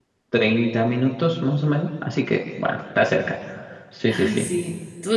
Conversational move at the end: taking over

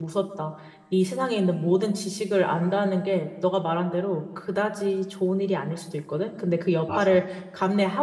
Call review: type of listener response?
listening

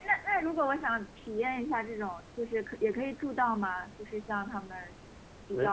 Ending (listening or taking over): taking over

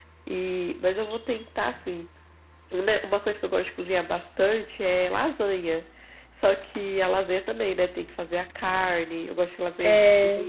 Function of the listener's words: listening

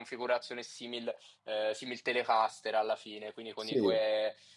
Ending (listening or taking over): listening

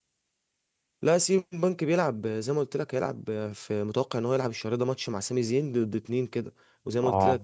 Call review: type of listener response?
listening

